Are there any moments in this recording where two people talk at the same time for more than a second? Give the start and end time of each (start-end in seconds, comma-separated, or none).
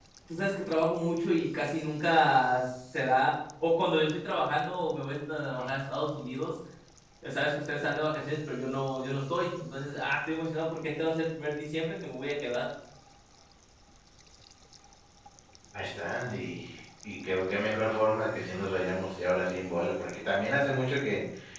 none